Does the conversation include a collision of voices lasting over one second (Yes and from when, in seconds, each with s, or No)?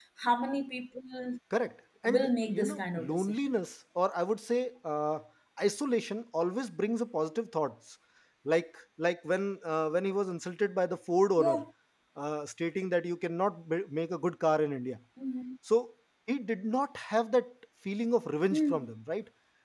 Yes, from 2.1 s